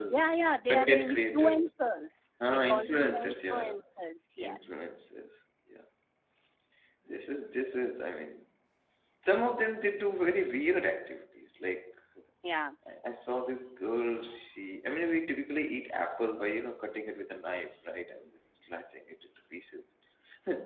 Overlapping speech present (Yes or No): Yes